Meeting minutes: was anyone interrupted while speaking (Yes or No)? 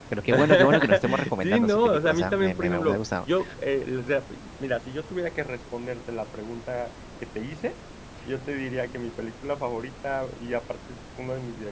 Yes